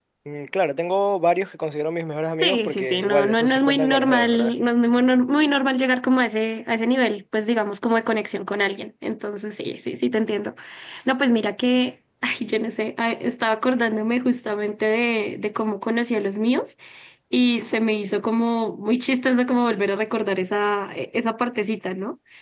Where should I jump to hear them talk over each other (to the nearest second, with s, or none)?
2 s